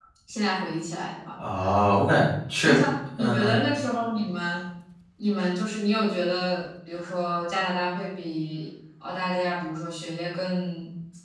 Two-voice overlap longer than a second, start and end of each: none

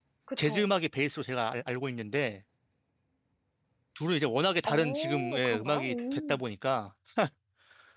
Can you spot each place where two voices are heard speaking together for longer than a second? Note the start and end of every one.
4.7-6.4

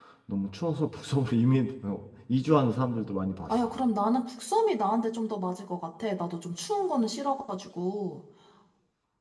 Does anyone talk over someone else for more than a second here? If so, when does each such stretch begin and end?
none

